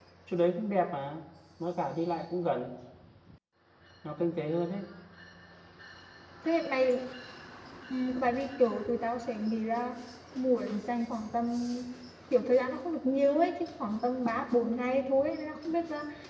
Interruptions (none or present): none